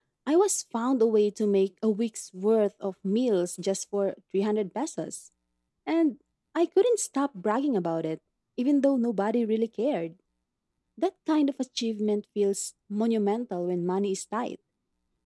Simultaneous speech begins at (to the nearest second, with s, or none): none